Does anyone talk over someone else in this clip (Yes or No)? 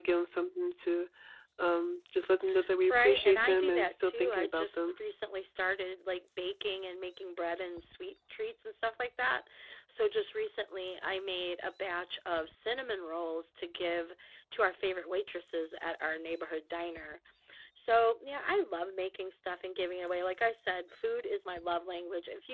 Yes